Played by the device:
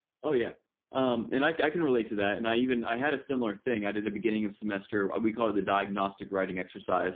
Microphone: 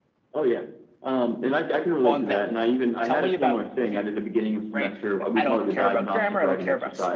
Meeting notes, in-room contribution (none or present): present